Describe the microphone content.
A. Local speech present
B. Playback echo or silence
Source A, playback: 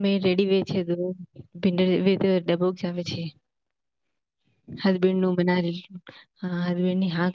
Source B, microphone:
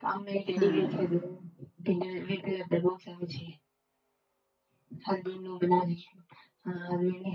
A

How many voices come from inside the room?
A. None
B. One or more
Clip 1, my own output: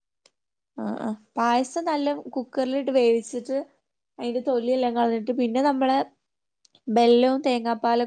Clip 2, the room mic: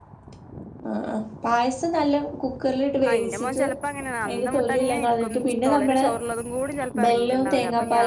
B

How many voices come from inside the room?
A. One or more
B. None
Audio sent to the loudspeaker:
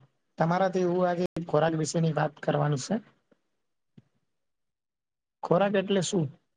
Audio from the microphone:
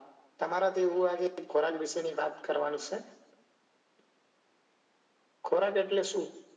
B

